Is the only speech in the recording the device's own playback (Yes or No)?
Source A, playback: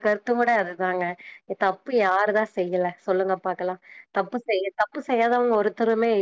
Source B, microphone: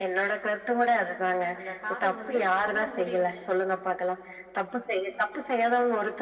No